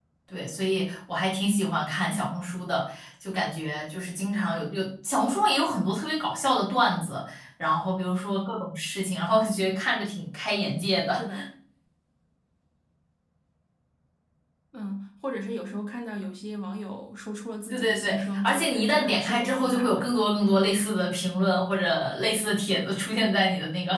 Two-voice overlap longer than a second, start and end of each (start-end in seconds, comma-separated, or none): 17.7-20.1